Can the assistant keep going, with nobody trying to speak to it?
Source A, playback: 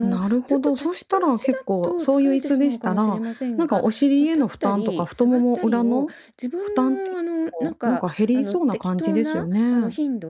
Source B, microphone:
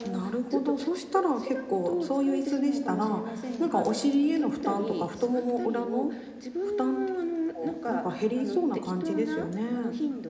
Yes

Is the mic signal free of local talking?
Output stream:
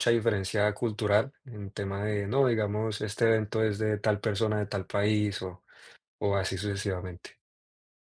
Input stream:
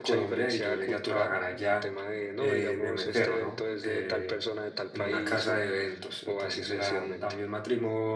No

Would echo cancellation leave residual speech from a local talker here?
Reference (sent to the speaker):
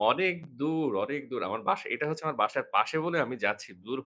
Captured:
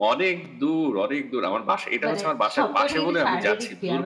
Yes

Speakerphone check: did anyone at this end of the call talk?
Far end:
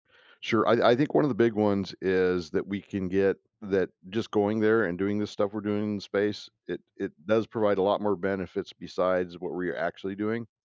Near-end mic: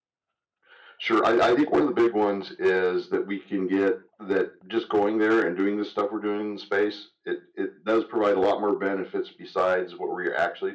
No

